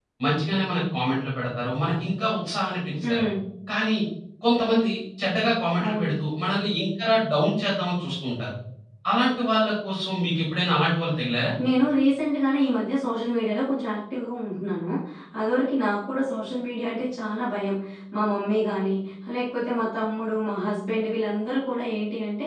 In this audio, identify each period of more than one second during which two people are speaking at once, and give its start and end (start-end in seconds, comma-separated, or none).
none